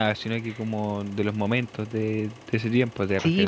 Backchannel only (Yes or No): No